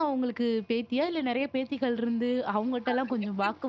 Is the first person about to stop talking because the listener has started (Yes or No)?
No